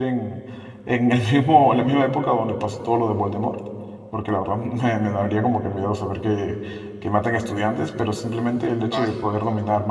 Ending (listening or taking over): listening